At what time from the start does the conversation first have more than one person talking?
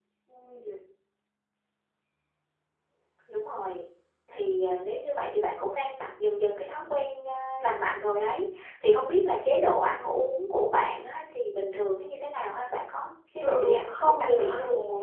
13.4 s

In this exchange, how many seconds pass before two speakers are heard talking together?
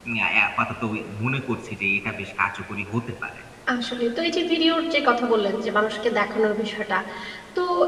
none

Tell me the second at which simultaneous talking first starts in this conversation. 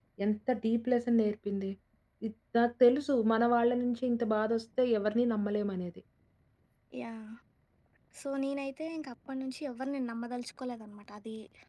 none

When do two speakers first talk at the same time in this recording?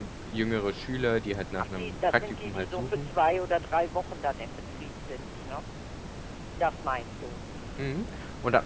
1.6 s

